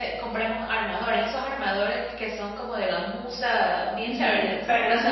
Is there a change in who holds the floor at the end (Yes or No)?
Yes